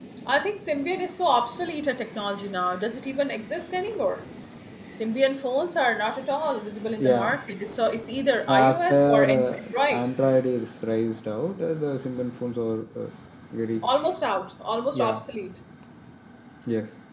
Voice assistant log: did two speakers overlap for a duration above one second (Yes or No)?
Yes